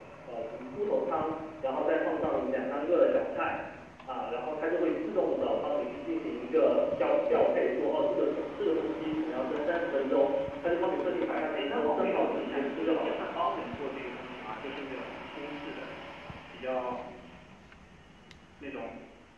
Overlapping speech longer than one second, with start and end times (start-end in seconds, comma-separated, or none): 10.8-13.2